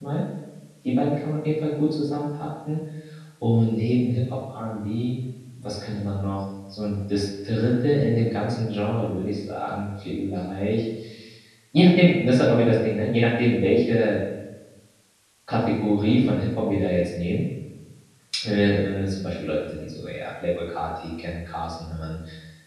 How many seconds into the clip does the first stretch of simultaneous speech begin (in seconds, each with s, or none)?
none